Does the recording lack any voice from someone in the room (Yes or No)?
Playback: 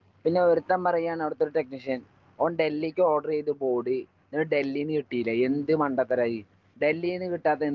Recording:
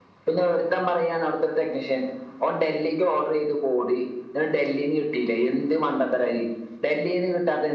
Yes